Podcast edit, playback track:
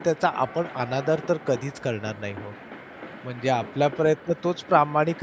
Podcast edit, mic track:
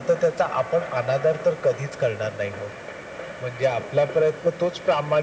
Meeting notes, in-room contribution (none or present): none